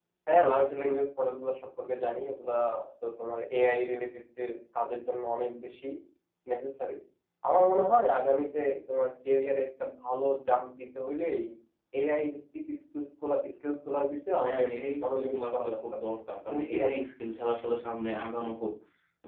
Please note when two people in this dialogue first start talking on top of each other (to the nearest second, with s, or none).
14 s